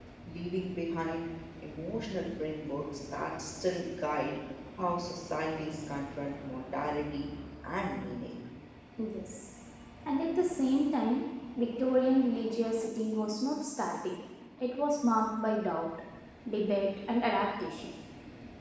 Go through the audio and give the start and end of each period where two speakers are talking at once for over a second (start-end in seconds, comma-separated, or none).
none